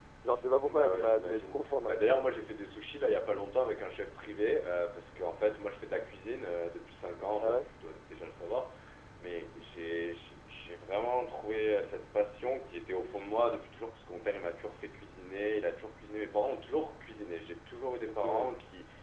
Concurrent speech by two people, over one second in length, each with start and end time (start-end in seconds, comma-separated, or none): 0.6-2.2